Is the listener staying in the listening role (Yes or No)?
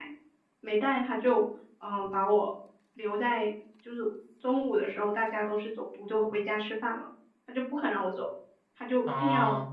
Yes